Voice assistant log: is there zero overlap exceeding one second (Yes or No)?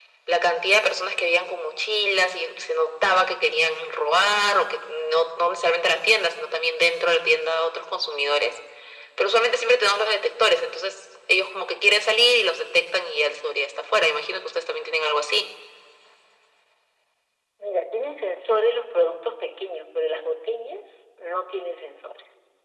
Yes